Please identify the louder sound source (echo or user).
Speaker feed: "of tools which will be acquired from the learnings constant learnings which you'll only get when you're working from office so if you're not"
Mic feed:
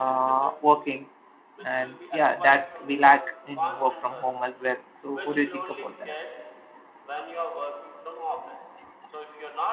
user